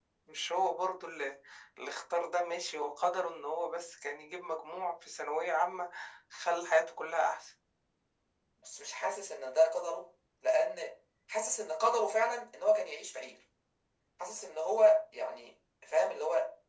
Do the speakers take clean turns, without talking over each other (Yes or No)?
Yes